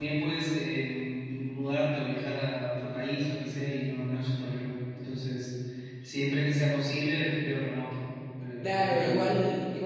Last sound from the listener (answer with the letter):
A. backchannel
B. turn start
B